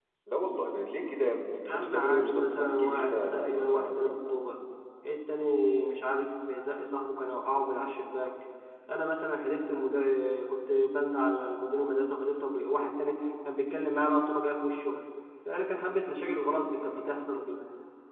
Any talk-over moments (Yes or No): Yes